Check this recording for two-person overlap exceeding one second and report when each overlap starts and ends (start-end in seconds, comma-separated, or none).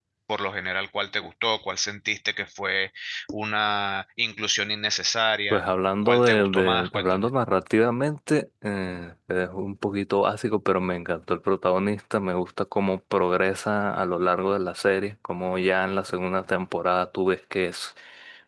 6.0-7.3